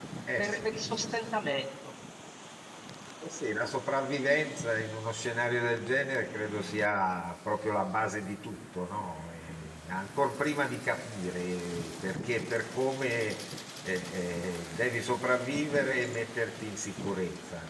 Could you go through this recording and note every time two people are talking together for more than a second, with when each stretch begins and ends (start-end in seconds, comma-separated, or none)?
none